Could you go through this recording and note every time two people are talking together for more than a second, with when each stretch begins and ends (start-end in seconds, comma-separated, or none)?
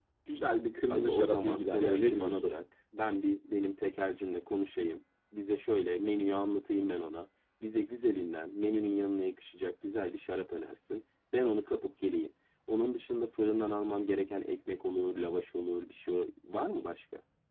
0.9-2.6